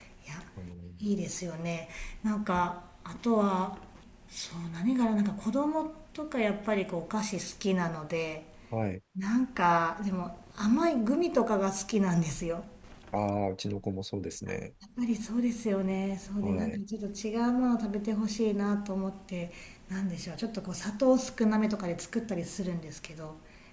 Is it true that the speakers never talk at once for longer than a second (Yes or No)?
Yes